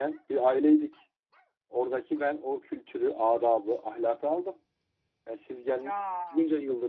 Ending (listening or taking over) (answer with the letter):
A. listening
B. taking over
A